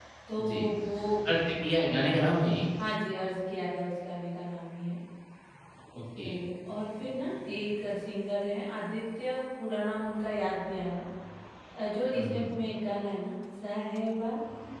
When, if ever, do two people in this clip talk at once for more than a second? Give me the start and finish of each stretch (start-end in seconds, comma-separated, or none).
none